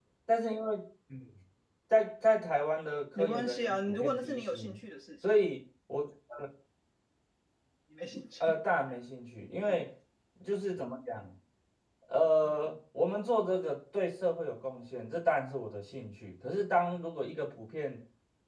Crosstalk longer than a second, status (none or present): present